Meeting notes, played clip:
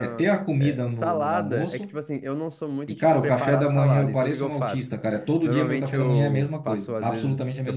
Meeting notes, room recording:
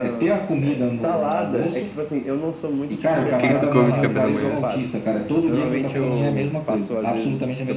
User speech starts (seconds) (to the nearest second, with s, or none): 3 s